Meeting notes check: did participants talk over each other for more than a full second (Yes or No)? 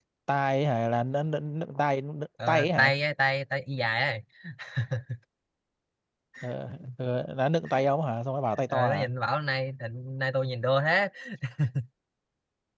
No